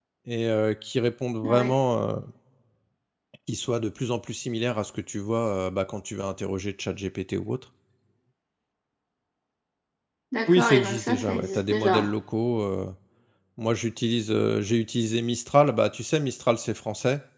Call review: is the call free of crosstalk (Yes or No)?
No